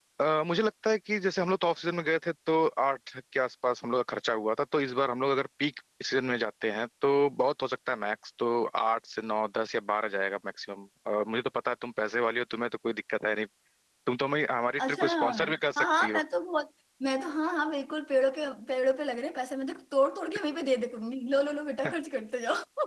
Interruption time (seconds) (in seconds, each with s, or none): 14.8 s